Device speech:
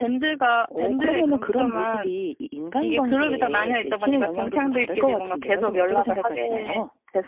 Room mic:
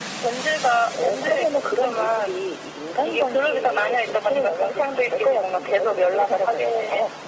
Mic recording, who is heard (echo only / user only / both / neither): echo only